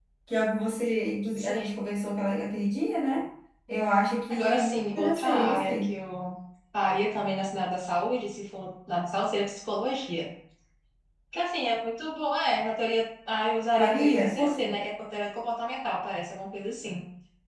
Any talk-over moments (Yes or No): Yes